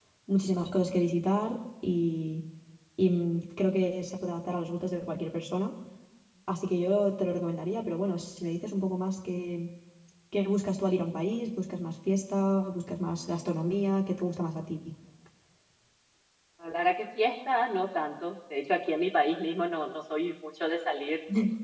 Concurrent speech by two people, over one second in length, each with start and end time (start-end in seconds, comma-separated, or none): none